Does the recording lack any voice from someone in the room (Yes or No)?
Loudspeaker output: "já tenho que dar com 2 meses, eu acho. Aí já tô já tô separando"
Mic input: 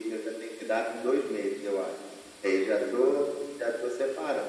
Yes